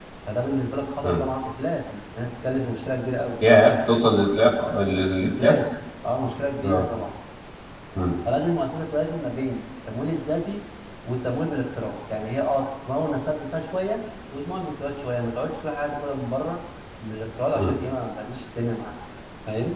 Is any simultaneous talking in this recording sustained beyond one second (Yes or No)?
No